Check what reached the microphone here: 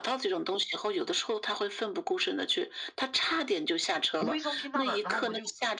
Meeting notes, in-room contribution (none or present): present